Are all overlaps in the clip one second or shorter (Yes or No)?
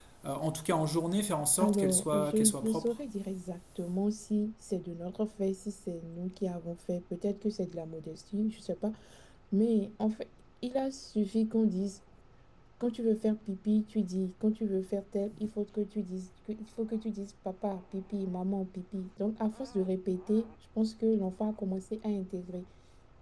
No